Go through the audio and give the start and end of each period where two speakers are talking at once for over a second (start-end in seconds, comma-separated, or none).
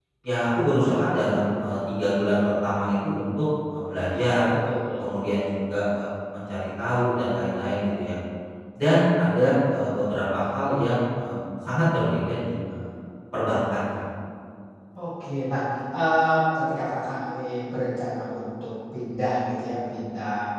none